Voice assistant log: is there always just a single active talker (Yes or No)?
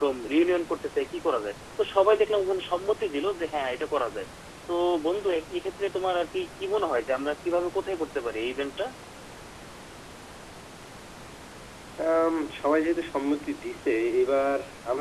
Yes